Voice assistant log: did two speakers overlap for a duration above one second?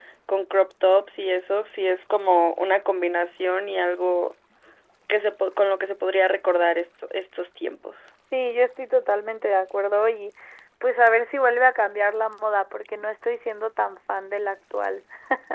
No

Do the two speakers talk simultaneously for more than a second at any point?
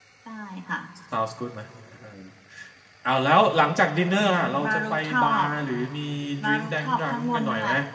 Yes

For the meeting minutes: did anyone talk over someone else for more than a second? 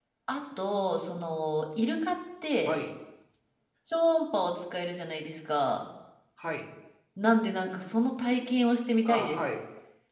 No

